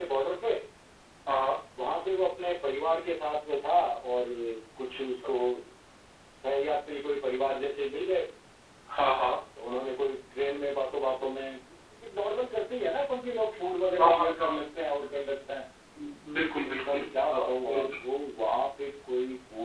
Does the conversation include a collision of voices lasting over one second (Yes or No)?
Yes